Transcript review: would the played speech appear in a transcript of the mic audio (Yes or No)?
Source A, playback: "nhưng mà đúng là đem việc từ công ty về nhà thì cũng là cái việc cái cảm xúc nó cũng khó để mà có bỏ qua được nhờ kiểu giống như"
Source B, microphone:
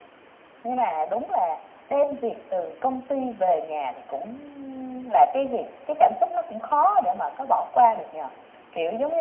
Yes